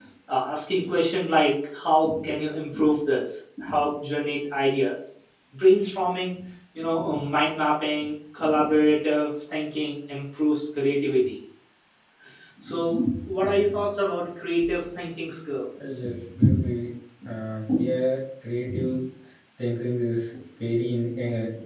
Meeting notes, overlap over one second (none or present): none